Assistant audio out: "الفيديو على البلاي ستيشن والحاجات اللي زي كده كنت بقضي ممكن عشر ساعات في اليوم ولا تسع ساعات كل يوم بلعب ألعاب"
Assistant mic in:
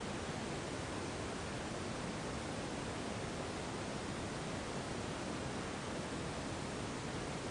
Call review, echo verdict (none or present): none